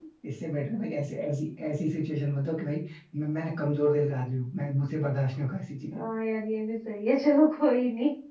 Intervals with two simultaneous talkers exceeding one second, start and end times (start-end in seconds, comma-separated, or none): none